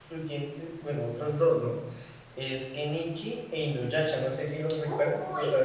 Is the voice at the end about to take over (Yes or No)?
Yes